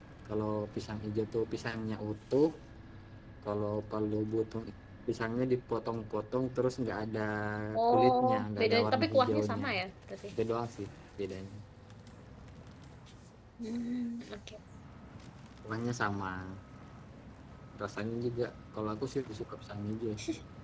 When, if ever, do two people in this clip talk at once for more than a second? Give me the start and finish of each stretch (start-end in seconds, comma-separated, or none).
7.9-9.6